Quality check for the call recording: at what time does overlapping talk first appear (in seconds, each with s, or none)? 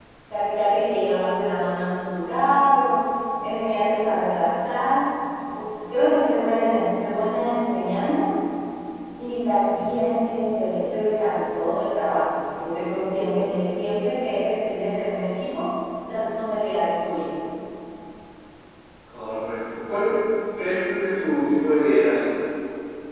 none